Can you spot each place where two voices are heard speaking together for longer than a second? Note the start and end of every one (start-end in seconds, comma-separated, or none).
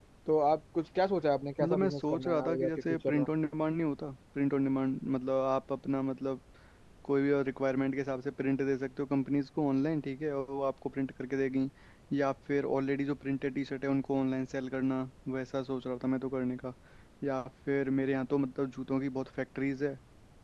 1.6-3.1